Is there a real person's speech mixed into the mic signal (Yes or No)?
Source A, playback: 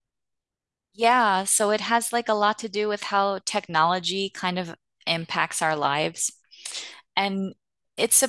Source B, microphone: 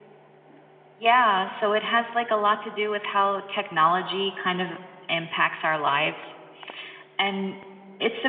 No